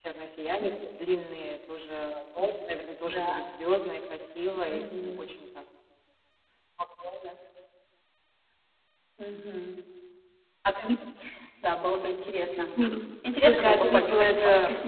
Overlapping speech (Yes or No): Yes